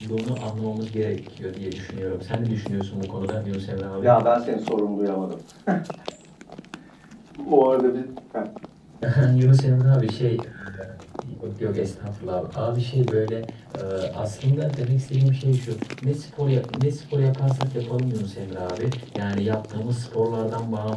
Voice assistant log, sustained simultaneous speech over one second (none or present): none